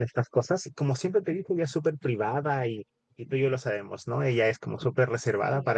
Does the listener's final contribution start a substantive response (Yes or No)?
No